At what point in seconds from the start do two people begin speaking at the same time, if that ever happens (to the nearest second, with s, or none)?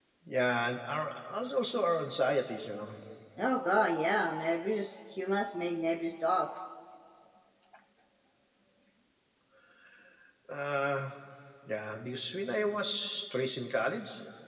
none